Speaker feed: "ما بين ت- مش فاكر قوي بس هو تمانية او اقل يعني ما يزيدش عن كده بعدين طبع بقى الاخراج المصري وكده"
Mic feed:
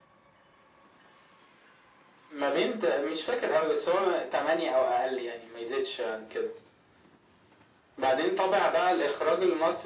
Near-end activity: none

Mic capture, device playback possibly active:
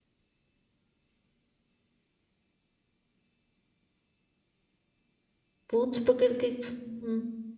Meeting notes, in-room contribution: present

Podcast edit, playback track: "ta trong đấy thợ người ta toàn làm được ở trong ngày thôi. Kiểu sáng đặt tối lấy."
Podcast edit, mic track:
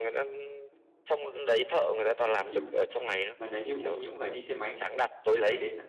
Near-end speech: present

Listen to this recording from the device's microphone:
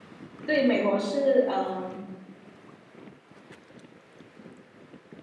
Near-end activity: present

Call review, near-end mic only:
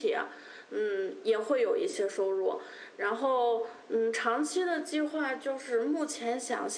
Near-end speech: none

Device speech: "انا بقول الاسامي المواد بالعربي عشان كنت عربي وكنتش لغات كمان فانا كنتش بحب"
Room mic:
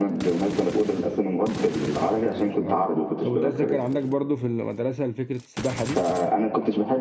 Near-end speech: present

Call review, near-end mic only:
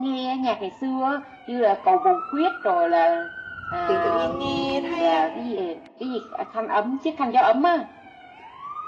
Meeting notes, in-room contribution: present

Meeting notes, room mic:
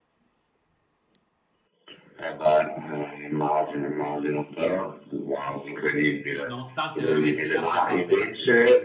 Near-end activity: present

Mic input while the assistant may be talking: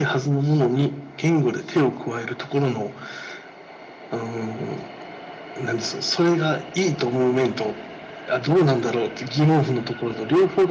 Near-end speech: none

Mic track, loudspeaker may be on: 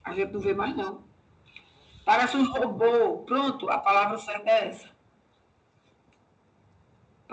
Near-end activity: none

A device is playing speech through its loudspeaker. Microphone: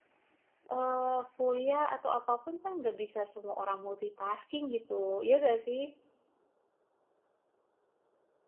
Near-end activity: present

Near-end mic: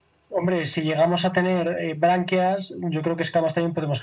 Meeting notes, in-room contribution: none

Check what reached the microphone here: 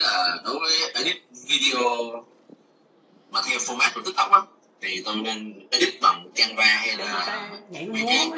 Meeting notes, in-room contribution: present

